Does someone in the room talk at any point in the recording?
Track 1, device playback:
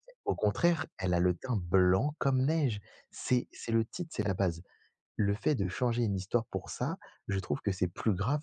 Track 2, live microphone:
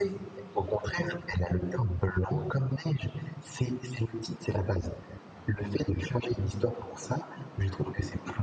No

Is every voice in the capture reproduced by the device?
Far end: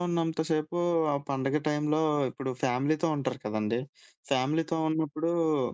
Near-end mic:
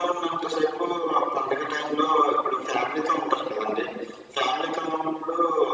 Yes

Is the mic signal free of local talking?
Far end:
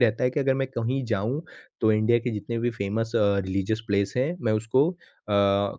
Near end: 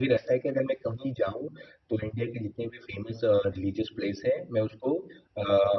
Yes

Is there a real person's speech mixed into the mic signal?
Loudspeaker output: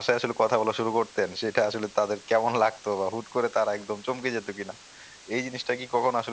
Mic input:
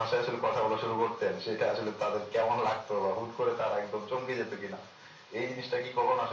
No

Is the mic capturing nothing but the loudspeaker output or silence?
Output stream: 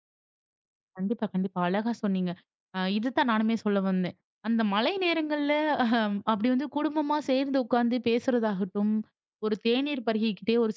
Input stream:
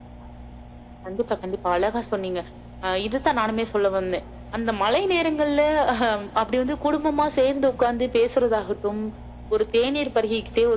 Yes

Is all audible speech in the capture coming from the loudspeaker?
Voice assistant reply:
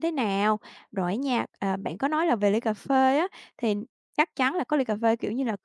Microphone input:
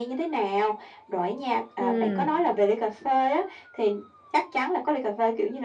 No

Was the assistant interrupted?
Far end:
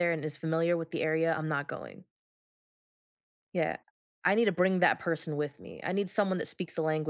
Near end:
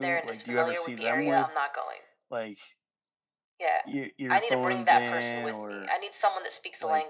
Yes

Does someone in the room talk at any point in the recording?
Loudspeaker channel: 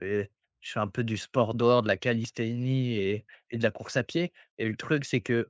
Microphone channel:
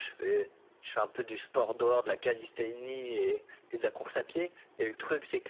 No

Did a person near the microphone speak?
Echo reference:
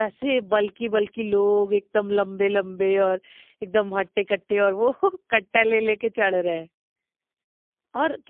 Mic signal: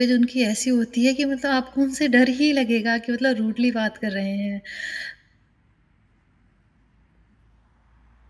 Yes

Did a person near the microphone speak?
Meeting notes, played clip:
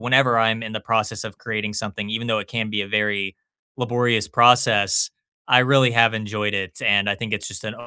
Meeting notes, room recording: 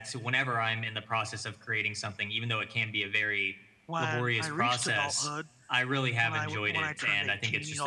Yes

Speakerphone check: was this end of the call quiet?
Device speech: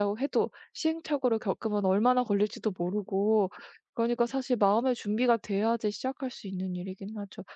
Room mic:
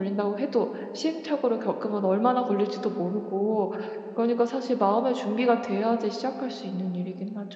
Yes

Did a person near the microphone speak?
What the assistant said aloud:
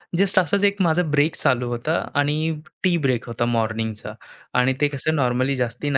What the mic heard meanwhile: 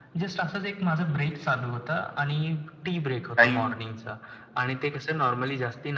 Yes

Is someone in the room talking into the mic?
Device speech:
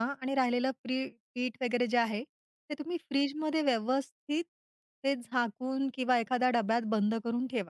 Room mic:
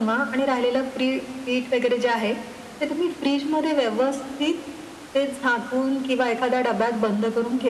No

